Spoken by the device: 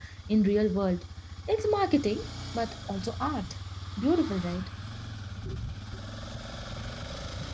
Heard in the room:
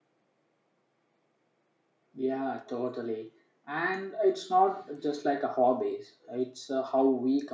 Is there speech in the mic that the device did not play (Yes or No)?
Yes